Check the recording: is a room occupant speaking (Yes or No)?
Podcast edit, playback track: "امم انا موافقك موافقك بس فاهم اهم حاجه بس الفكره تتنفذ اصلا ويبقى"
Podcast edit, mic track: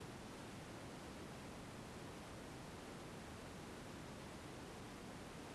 No